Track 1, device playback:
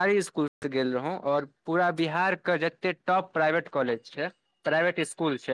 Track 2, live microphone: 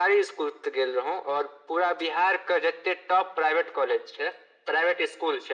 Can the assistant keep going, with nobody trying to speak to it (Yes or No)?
Yes